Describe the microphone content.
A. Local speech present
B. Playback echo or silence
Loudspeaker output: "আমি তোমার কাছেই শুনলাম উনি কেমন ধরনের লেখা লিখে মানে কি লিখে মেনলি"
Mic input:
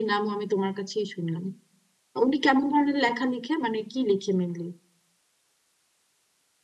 B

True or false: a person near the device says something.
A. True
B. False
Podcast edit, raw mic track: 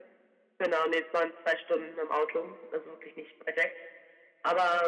B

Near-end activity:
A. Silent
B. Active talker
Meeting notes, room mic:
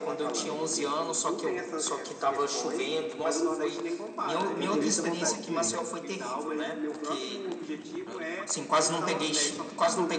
B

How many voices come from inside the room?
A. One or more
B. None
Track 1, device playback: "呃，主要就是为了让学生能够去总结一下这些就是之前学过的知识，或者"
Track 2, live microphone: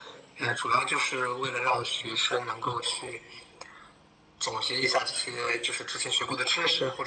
B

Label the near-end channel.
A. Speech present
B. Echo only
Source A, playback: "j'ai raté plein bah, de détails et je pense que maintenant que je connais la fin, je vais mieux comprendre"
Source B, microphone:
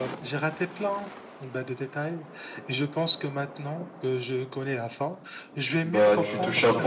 A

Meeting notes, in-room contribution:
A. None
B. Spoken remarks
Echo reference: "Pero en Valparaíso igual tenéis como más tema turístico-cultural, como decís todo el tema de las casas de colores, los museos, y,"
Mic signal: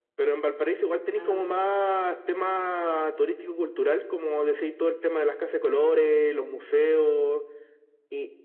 B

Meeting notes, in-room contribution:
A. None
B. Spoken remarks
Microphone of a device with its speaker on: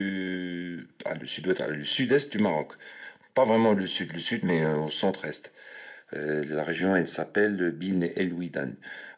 A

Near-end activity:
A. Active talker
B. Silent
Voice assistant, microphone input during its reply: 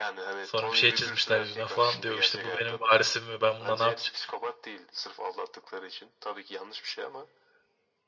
A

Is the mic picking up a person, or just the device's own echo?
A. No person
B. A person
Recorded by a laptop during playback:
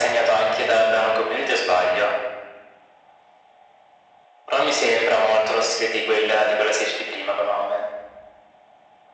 A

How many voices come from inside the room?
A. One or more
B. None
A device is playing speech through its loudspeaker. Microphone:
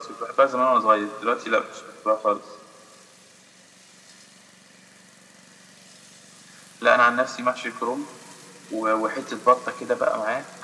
B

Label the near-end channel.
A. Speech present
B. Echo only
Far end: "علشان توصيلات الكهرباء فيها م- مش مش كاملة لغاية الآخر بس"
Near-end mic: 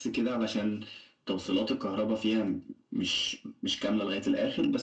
B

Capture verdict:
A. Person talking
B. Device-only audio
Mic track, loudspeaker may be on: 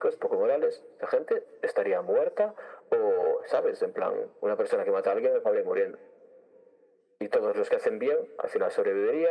B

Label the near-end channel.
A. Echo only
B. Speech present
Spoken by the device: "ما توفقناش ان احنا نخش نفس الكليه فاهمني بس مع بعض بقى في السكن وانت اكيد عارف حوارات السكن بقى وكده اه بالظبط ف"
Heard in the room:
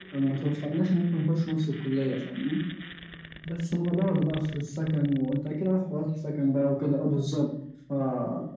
A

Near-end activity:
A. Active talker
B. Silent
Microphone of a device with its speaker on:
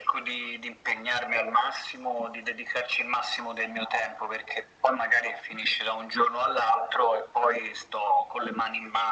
B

